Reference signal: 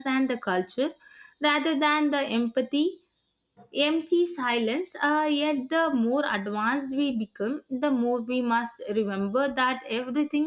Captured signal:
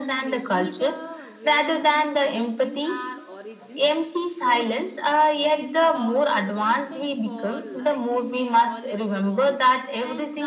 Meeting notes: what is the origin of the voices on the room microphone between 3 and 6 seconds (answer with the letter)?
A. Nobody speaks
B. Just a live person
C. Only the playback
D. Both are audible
D